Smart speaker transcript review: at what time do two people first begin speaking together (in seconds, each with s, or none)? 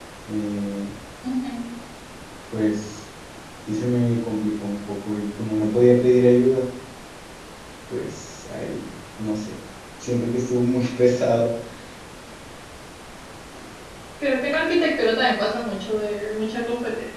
none